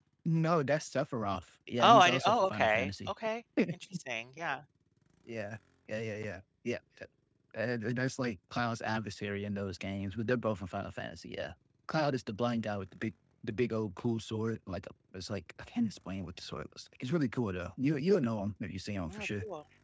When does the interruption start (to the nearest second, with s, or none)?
2 s